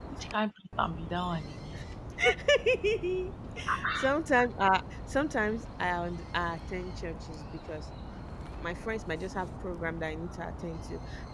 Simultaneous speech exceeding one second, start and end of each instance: none

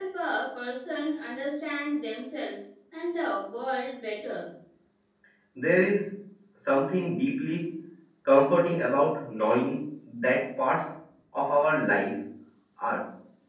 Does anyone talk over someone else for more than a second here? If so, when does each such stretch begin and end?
none

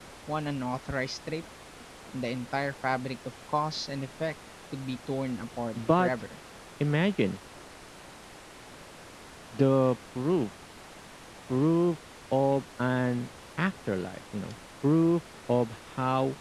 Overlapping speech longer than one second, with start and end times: none

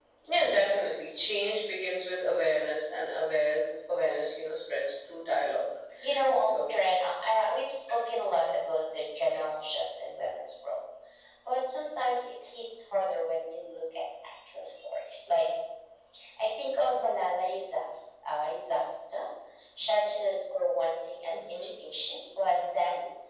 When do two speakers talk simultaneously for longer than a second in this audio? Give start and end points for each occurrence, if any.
none

